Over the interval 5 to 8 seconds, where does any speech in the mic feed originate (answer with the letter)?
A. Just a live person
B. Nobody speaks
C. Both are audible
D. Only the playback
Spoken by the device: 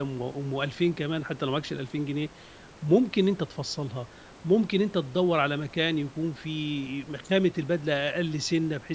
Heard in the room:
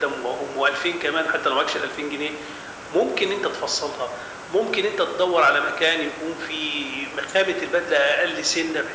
D